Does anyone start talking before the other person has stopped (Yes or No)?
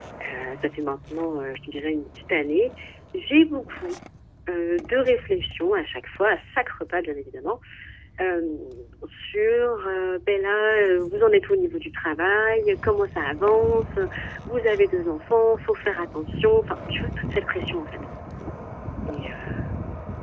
No